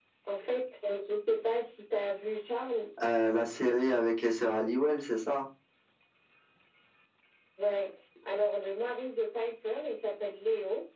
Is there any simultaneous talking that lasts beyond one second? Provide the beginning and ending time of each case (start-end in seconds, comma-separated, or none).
none